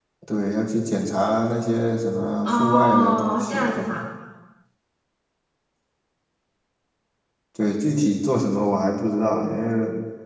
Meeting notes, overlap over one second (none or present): present